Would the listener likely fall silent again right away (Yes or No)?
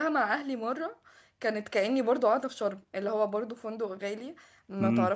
Yes